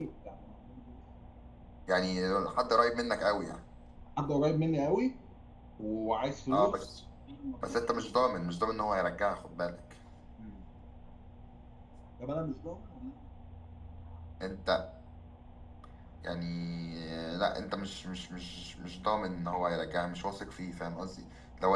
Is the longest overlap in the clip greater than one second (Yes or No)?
No